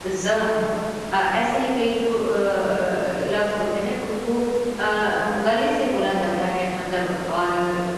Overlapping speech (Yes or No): No